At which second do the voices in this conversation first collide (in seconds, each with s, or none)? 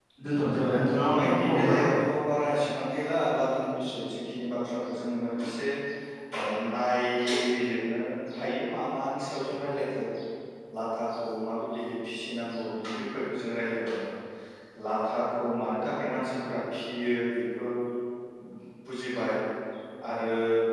0.6 s